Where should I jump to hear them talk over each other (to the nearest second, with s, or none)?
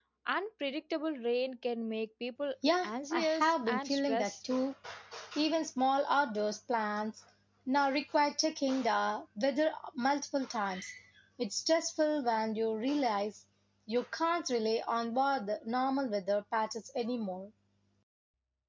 3 s